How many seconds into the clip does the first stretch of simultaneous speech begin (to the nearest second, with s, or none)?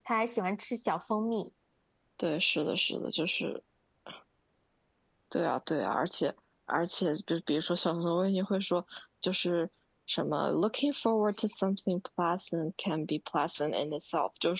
none